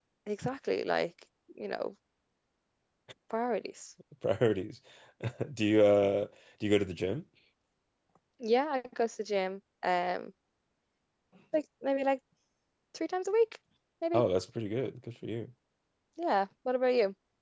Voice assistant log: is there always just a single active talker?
Yes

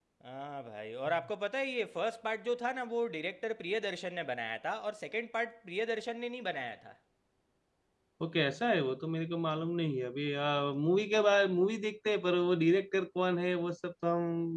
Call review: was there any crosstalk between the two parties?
No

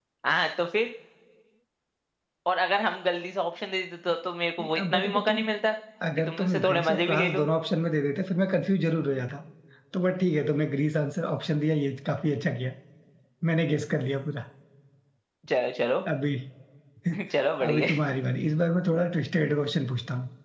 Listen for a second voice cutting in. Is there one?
Yes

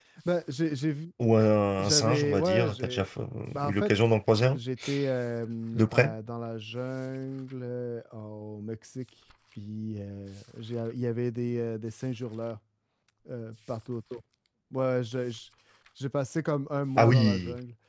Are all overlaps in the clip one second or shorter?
No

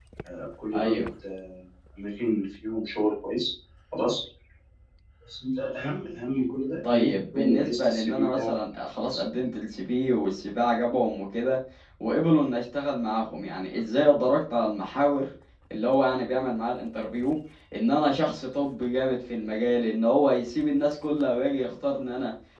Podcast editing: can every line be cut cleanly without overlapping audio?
No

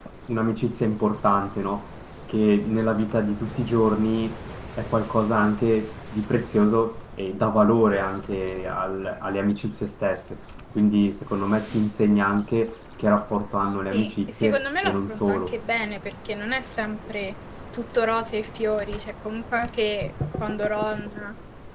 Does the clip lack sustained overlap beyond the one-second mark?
No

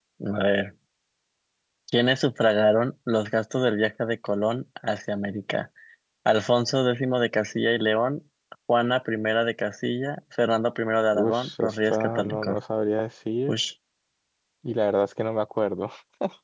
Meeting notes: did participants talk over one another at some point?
Yes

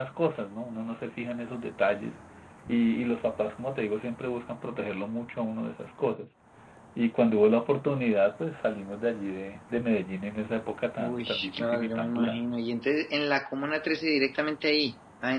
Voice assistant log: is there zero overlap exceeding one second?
No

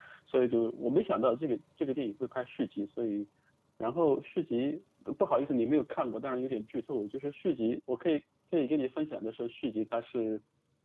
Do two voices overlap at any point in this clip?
No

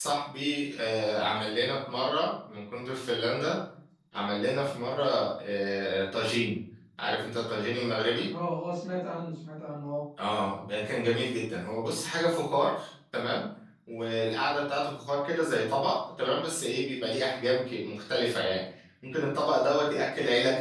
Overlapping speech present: No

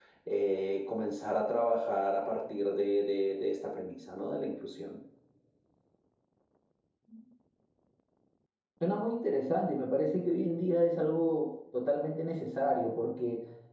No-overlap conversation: Yes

